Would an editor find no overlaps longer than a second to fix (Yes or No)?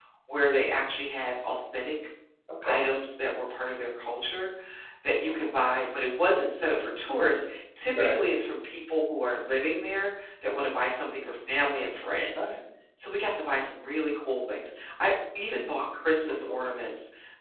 Yes